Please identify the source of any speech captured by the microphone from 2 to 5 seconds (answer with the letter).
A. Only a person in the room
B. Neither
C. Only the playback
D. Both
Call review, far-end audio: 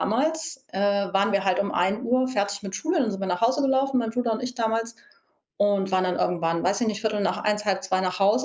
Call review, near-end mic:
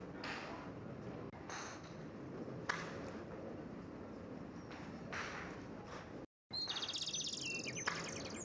B